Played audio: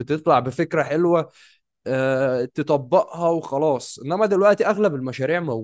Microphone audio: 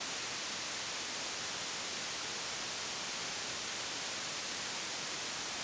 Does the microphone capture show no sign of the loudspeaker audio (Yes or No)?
Yes